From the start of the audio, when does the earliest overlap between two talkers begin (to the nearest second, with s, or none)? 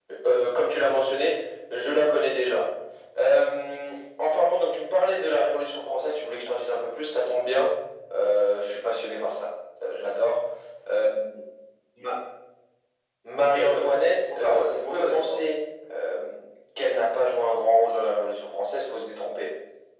14 s